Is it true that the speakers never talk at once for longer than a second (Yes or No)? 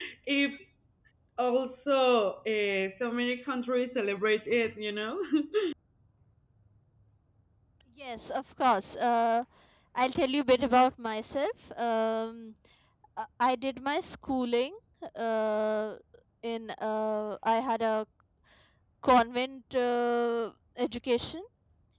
Yes